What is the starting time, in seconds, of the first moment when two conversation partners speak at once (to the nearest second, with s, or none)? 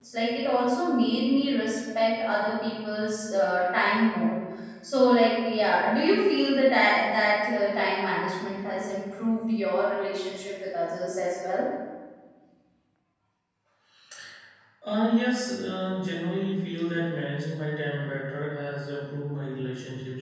none